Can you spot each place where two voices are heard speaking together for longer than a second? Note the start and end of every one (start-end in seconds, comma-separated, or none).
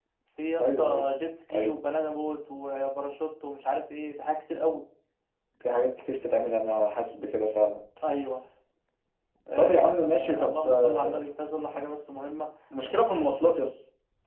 9.6-11.2